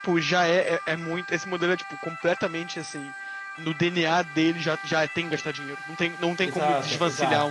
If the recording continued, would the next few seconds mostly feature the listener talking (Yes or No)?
Yes